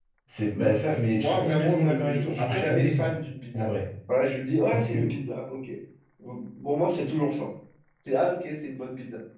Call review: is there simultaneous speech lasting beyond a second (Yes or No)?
Yes